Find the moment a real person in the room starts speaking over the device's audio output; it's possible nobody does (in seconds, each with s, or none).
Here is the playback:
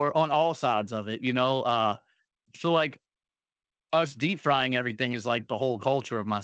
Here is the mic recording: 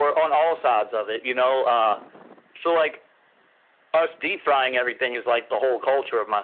none